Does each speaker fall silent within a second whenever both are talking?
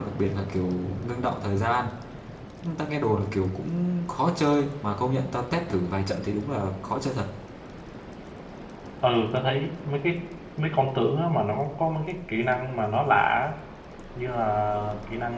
Yes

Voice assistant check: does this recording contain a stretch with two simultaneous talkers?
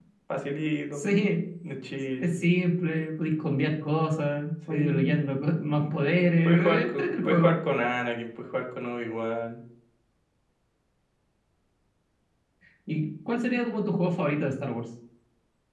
Yes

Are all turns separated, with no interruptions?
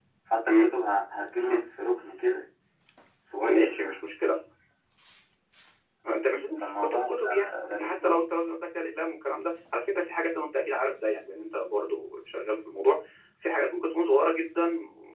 No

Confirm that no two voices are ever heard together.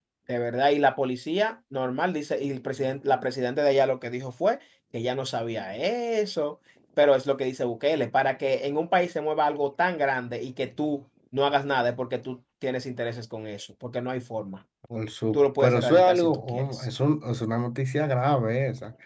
No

